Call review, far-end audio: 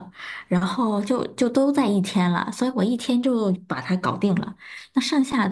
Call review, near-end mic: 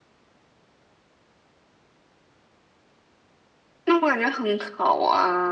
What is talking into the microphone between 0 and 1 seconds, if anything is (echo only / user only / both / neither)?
neither